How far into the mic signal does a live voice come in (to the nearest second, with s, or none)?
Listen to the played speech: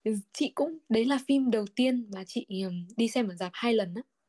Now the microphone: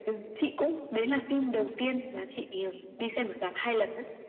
none